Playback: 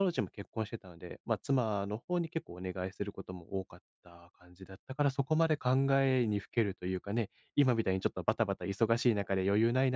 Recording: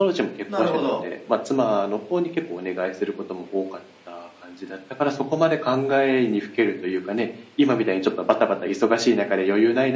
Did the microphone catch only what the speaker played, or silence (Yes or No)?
No